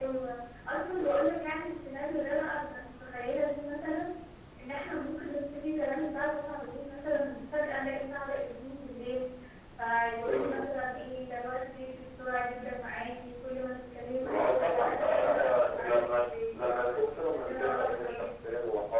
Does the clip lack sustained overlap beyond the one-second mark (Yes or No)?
No